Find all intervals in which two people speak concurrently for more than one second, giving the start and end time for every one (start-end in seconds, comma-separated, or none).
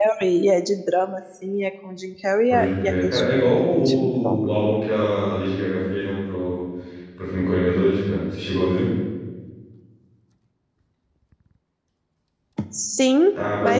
2.5-4.4